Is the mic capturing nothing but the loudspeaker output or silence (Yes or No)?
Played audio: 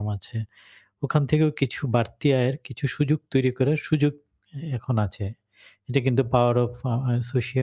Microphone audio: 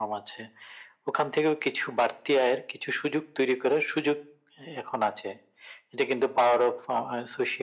Yes